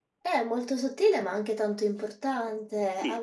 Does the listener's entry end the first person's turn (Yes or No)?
Yes